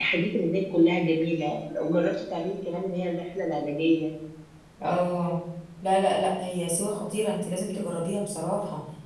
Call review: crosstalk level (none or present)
none